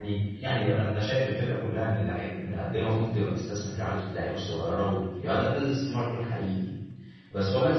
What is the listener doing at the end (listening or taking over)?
listening